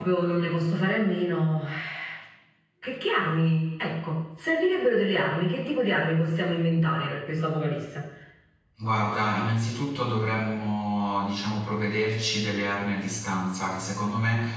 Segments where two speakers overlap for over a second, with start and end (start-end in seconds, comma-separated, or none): none